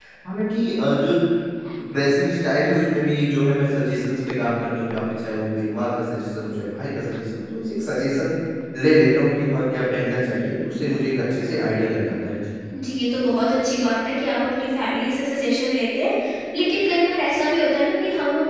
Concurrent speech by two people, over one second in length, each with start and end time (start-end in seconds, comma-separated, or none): none